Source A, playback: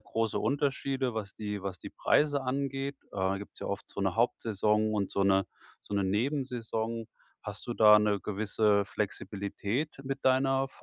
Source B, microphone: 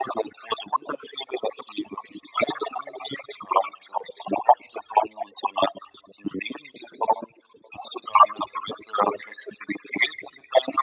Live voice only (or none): none